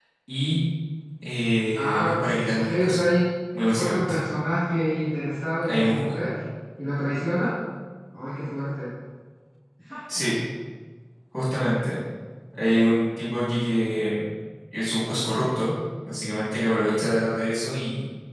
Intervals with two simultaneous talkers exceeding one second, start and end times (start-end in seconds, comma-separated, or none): 1.8-3.0